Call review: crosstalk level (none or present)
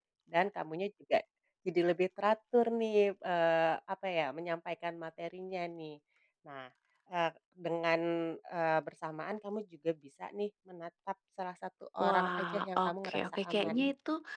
present